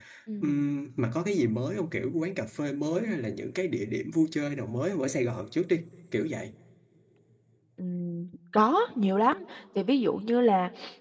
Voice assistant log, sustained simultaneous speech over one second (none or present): none